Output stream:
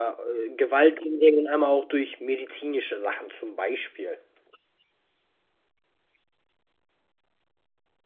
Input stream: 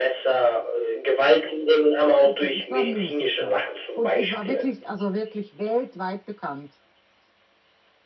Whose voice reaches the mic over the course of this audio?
both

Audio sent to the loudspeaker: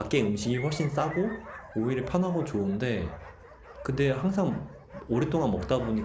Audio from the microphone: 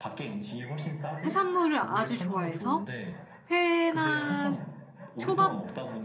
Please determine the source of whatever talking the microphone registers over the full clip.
both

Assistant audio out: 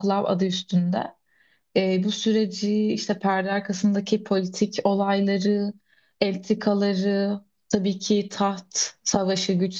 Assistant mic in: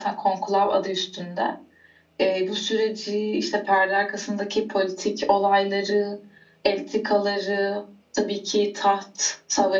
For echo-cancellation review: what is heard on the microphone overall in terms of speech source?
echo only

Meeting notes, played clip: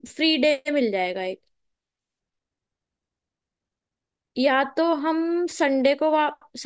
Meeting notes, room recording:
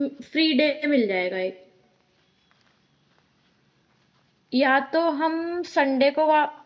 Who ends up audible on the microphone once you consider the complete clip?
echo only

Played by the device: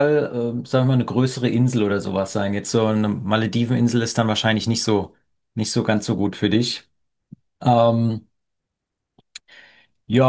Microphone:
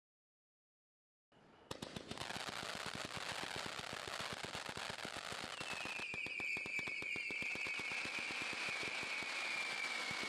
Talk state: neither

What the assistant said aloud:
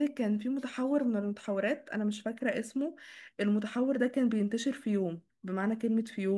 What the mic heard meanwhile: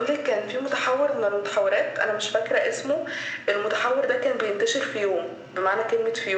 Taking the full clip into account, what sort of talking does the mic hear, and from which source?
echo only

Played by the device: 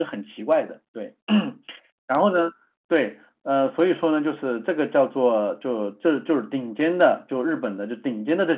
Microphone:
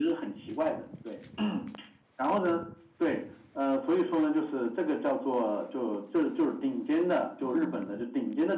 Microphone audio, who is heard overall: both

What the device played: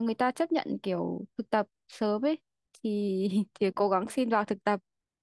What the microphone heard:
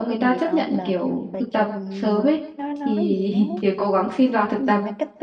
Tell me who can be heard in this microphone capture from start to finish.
both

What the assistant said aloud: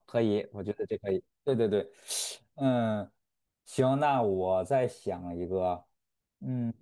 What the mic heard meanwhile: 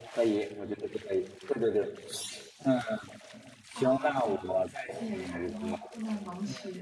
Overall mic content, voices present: both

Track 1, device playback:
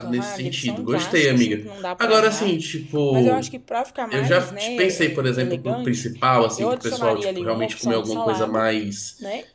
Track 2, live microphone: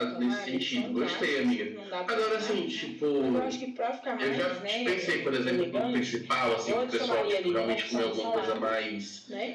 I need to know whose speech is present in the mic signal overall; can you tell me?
both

